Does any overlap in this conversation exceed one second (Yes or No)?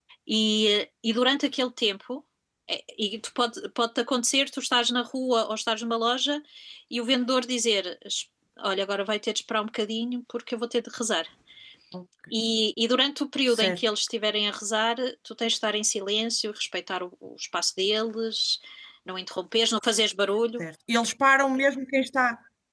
No